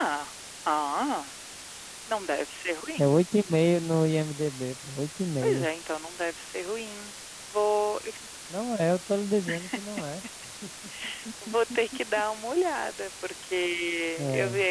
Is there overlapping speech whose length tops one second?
No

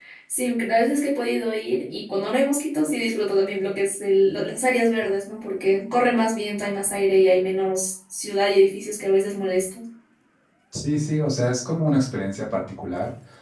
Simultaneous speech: No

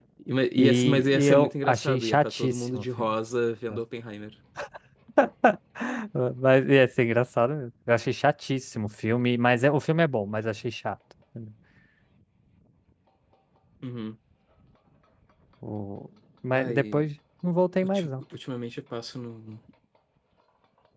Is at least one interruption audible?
Yes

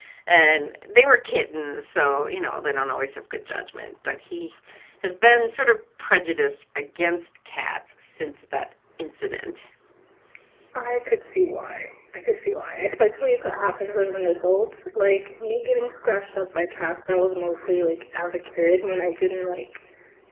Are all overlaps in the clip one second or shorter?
Yes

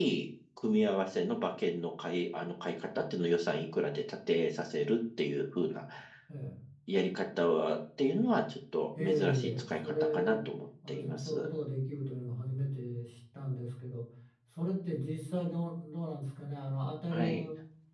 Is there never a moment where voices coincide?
No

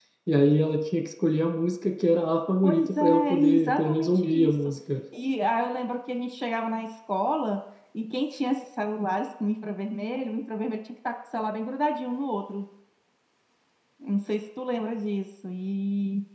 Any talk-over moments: Yes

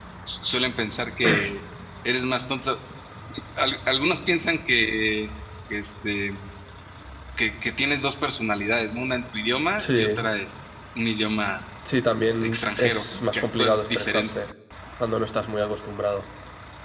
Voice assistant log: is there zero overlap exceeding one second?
No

